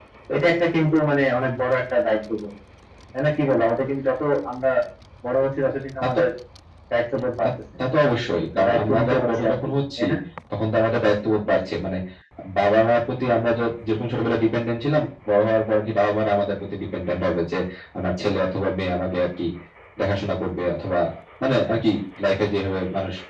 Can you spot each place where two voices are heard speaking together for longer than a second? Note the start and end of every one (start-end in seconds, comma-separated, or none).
8.6-10.0